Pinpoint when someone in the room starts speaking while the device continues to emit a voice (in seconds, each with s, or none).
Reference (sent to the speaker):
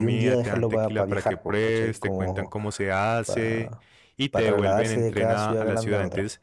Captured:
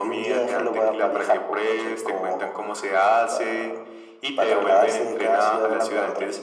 none